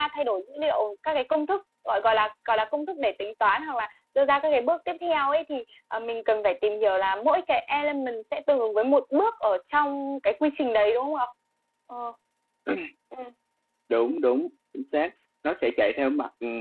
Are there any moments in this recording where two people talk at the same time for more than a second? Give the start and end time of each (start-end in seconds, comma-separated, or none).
none